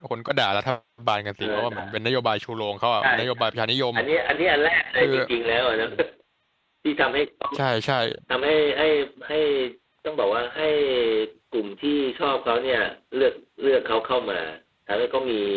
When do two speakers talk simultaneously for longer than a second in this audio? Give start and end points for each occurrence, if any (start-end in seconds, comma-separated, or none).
none